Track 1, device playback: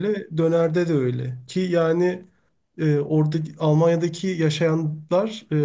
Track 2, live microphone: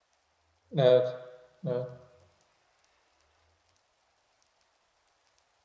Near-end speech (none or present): present